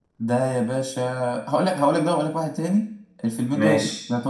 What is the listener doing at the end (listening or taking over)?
listening